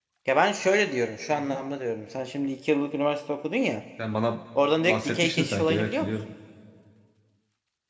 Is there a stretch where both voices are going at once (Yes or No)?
Yes